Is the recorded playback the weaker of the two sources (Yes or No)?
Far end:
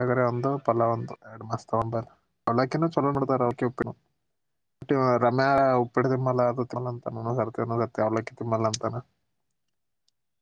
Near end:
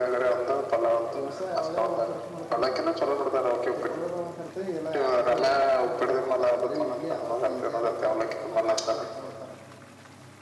No